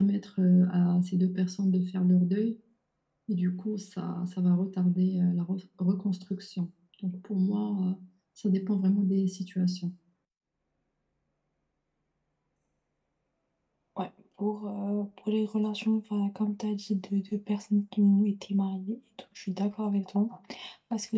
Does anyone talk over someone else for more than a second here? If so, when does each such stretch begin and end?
none

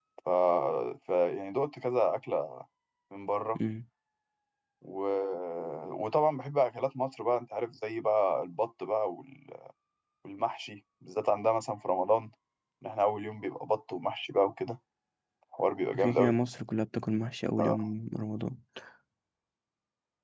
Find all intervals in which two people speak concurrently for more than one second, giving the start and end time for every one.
none

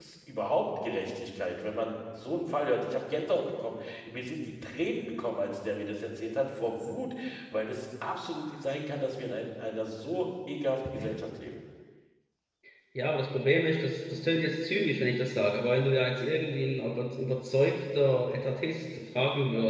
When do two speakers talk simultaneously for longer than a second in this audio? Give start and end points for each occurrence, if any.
none

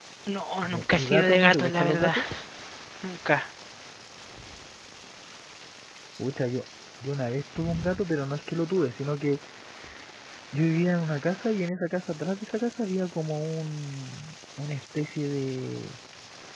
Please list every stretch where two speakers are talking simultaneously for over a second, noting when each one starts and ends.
0.6-2.1

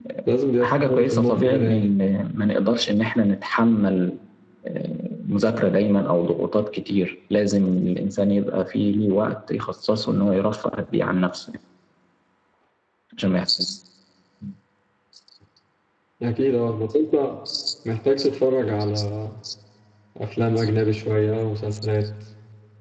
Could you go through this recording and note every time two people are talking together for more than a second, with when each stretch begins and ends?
0.6-1.9

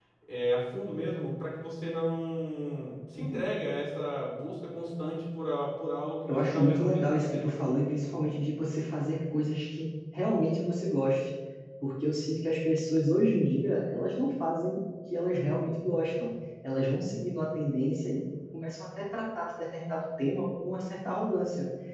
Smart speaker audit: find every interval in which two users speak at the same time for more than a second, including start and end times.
6.3-7.6

